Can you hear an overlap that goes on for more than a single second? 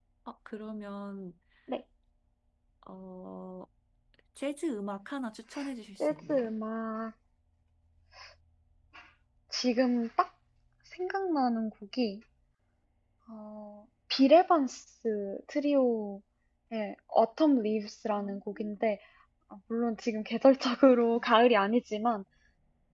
No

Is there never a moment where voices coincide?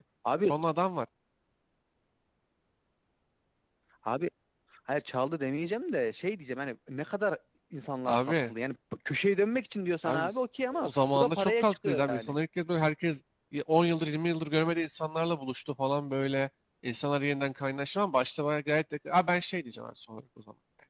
No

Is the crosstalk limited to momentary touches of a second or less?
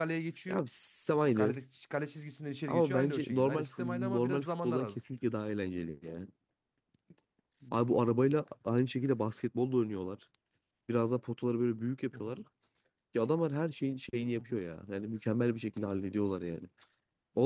No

